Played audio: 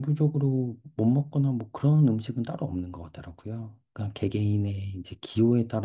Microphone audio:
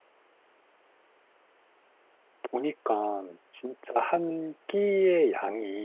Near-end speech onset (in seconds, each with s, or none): 2.5 s